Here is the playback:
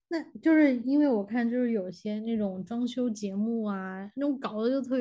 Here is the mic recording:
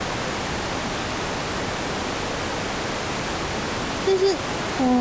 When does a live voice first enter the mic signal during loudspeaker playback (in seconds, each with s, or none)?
4.0 s